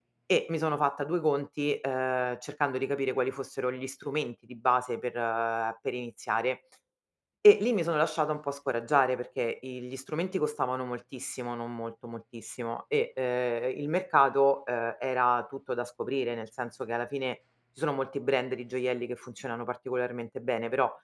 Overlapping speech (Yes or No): No